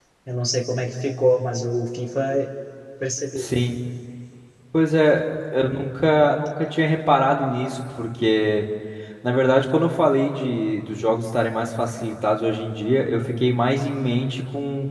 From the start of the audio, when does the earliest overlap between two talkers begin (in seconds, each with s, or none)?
none